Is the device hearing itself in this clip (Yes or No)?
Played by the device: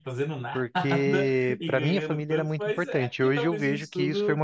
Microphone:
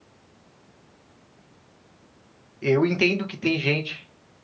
No